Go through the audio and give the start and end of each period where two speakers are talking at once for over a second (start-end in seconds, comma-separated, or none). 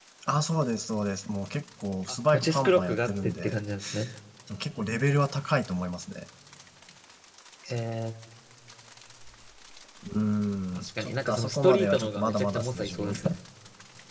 2.1-3.6, 10.8-13.1